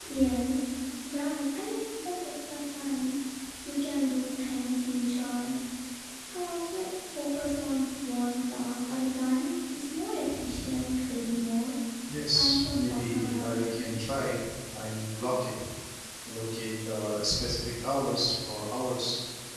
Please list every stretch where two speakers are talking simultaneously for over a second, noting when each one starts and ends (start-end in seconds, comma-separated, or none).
12.3-13.6